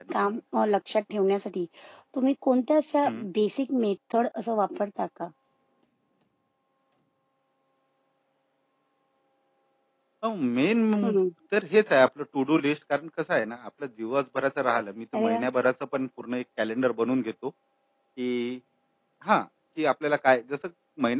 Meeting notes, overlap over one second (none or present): none